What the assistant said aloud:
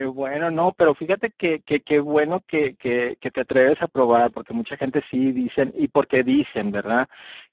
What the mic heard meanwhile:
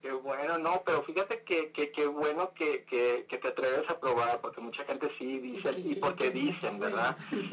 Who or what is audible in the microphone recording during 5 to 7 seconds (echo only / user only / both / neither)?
both